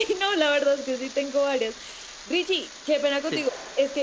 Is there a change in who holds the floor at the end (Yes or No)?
No